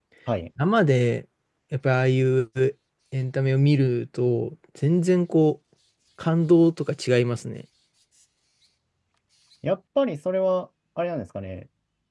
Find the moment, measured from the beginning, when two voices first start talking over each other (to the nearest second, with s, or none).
none